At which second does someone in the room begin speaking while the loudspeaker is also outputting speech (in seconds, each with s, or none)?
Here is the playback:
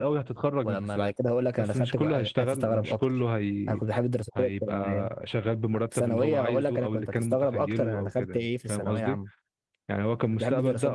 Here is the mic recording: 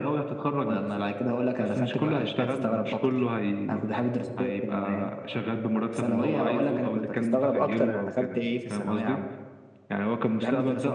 none